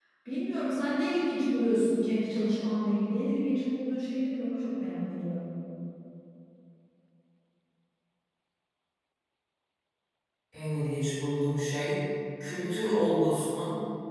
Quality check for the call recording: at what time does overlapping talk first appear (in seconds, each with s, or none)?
none